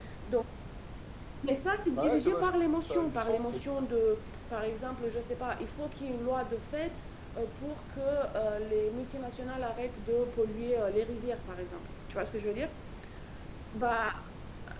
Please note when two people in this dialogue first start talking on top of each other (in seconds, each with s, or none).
2.0 s